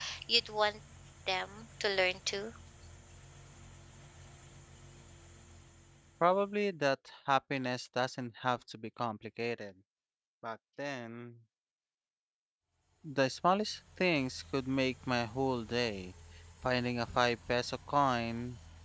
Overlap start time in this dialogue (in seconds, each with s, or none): none